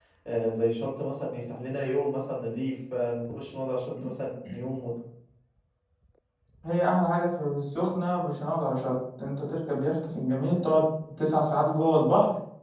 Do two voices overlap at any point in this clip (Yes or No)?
No